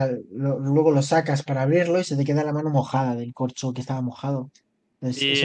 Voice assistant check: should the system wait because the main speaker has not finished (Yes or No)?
No